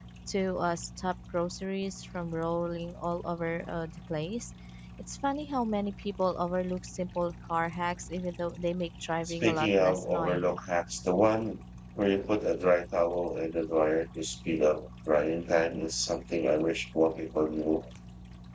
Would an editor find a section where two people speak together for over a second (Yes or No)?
Yes